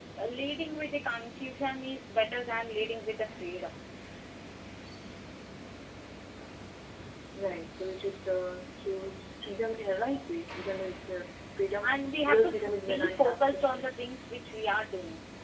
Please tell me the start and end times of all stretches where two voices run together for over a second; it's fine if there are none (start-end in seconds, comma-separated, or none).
11.8-13.8